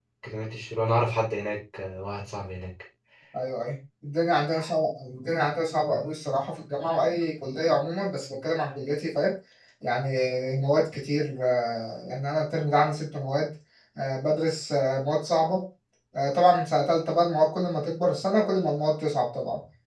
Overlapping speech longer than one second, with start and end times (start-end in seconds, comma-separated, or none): none